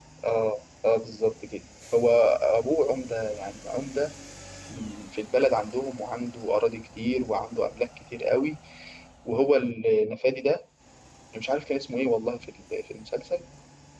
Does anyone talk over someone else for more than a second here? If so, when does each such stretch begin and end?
none

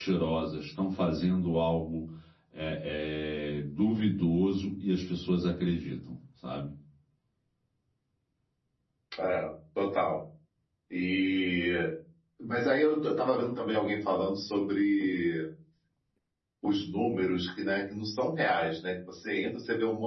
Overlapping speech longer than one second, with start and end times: none

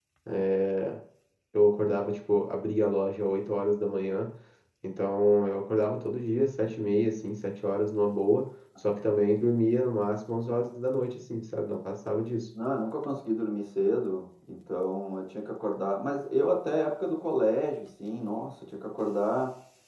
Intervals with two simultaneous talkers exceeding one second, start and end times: none

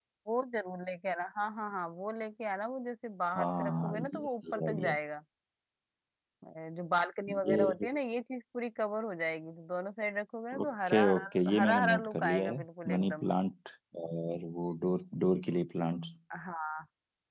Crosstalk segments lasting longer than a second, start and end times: 3.4-5.0, 10.6-13.2

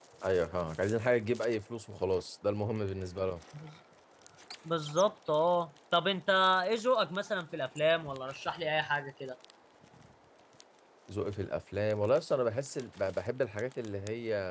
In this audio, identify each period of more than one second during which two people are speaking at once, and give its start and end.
none

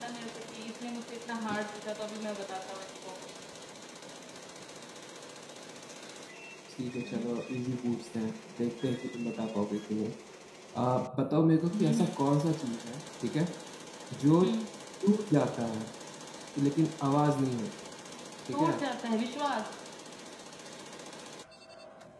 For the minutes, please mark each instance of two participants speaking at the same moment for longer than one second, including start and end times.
none

